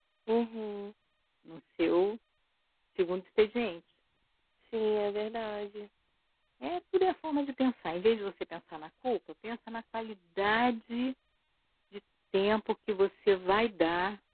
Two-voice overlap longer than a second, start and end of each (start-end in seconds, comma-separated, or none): none